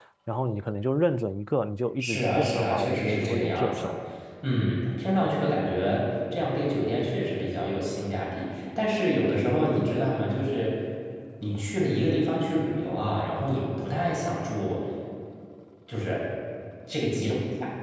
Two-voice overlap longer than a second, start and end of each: 2.0-3.9

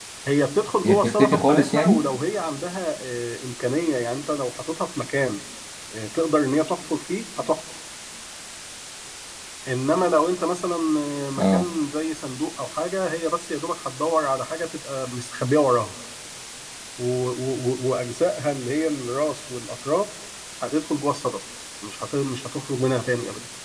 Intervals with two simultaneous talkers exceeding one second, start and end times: 0.8-2.0

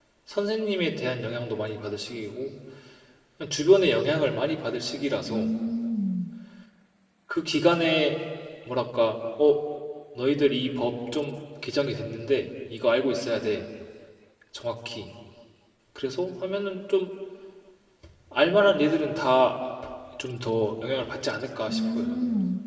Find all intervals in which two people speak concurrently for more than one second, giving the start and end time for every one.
none

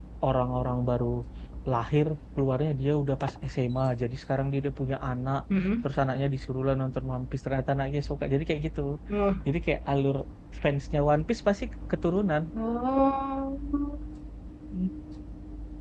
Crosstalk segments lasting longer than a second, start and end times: none

